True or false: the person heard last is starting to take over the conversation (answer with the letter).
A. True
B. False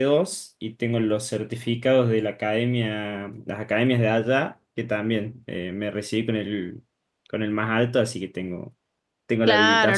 A